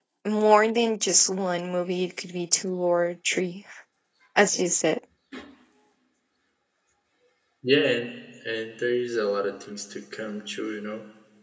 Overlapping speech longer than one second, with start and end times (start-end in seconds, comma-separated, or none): none